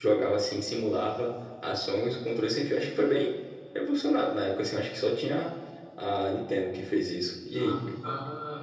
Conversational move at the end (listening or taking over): taking over